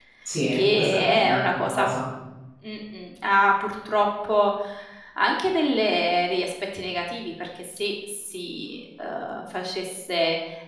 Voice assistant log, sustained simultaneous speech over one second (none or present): present